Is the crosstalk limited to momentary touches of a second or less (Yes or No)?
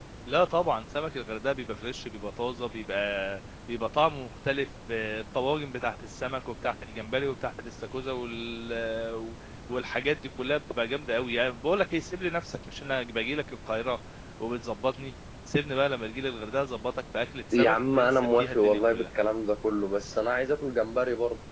No